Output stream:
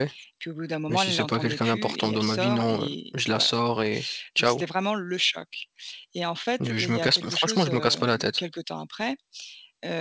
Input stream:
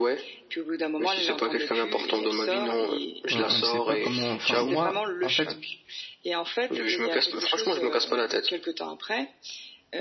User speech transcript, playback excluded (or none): on on ne sait pas comment enfin, moi, en fait,